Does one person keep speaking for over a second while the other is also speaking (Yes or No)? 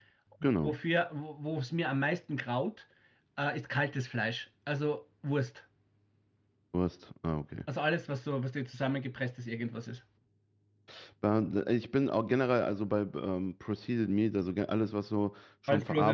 No